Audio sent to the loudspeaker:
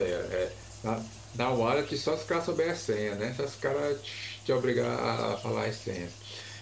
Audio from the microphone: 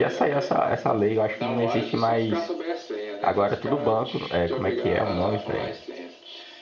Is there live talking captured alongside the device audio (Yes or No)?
Yes